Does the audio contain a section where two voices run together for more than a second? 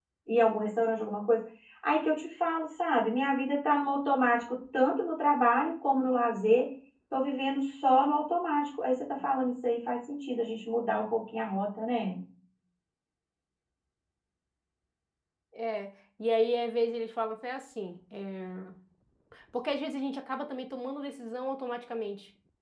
No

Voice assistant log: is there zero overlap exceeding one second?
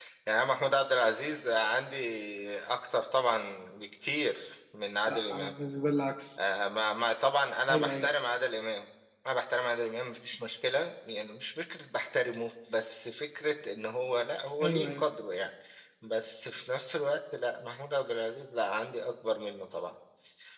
Yes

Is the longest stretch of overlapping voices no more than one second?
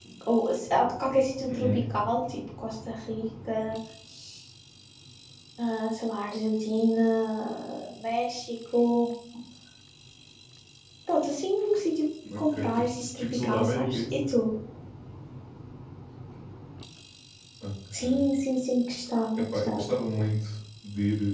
No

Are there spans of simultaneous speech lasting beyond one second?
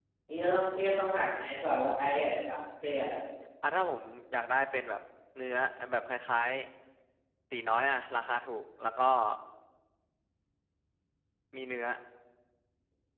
No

